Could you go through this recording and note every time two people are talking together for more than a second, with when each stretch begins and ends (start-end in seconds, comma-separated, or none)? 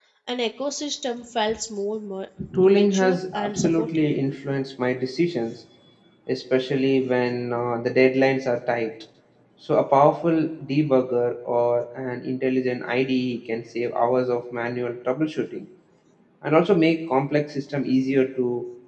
2.6-4.1